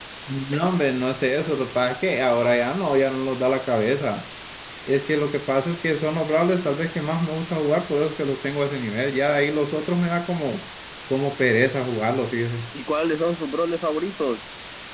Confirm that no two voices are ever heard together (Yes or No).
Yes